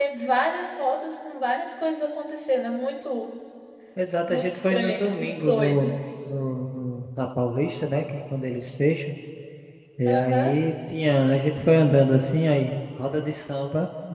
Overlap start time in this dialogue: 4.3 s

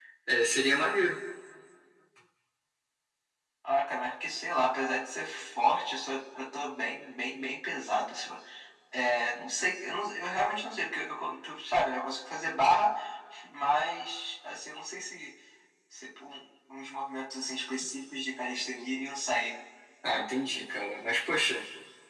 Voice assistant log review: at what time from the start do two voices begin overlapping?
none

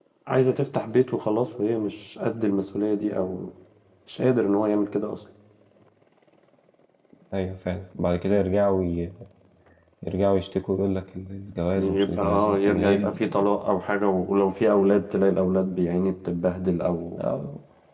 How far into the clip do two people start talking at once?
11.7 s

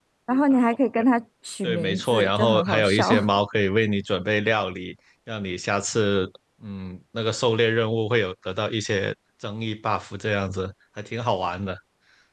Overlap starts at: 1.6 s

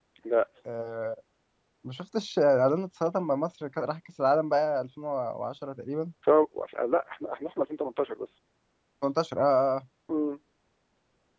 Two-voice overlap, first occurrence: none

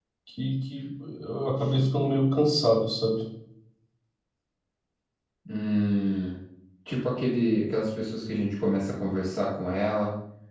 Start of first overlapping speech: none

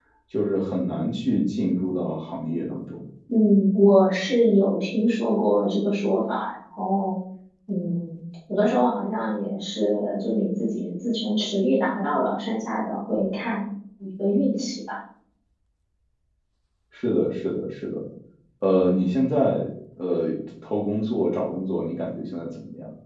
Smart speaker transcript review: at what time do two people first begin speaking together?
none

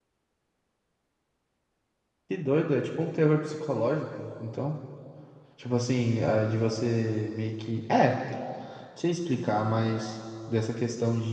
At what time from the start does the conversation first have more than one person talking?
none

